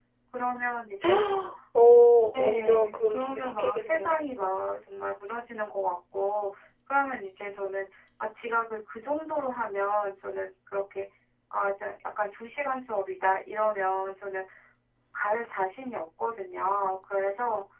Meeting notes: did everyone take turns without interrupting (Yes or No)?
No